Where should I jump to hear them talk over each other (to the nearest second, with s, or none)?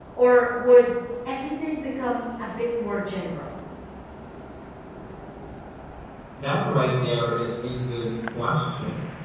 none